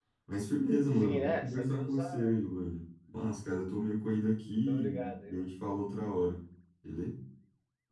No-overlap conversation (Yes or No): No